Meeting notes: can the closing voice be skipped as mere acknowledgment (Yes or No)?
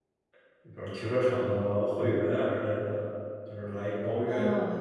No